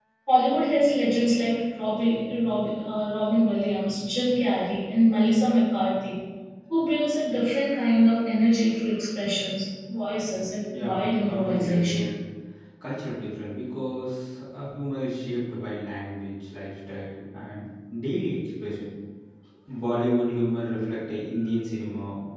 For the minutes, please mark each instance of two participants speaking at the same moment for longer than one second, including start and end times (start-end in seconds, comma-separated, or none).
10.7-12.1